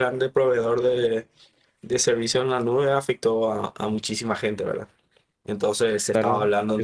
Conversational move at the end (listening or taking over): taking over